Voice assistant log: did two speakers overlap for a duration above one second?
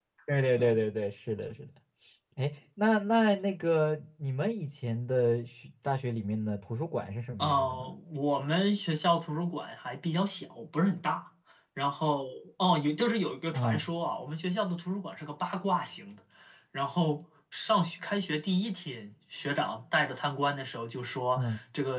No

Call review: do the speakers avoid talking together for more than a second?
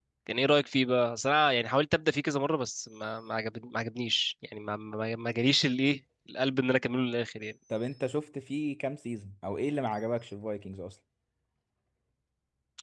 Yes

